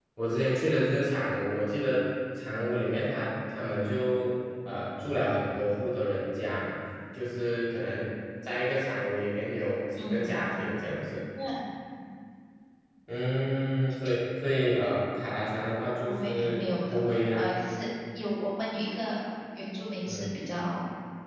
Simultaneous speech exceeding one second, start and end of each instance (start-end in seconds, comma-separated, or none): 16.1-17.4